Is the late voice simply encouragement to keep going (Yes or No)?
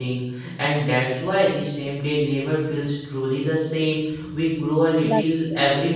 Yes